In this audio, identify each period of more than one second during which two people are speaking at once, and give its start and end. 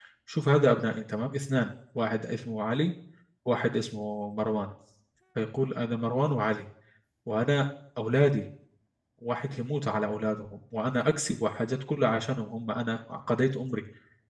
none

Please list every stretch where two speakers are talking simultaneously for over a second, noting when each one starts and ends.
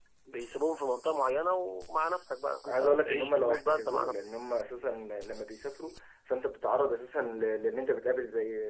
2.7-4.3

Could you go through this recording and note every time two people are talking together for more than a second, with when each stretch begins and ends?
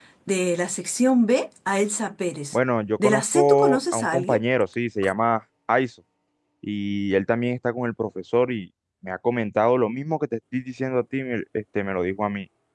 3.0-4.4

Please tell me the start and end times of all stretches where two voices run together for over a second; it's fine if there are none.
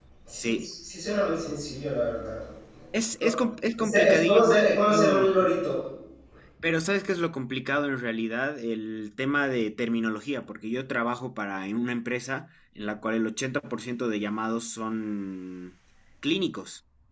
3.8-5.3

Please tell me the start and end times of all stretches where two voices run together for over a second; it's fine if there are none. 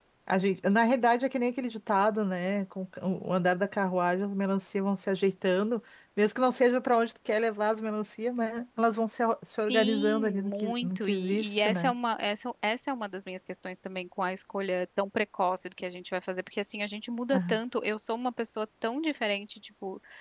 9.5-11.9

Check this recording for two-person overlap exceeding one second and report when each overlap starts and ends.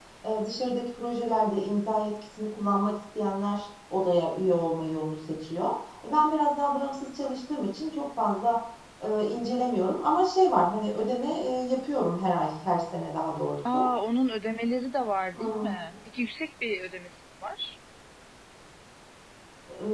none

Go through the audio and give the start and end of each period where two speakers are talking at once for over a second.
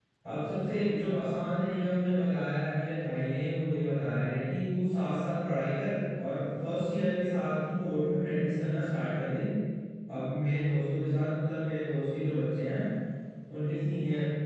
none

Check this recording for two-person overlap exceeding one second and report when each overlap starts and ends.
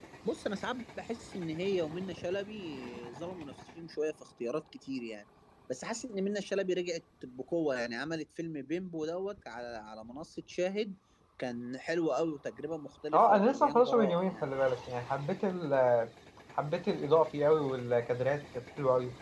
13.1-14.4

